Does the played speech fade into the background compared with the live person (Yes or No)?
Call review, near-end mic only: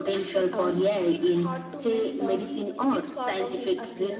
No